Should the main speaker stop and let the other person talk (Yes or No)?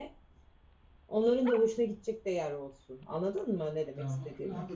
Yes